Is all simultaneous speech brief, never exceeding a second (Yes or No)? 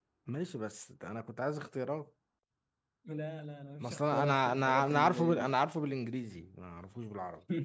No